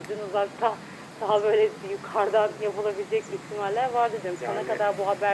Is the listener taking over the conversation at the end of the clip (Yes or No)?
No